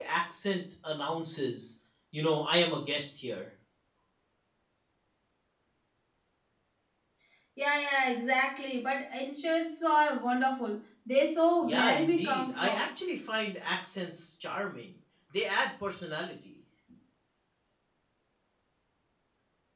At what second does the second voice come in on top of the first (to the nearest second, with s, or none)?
12 s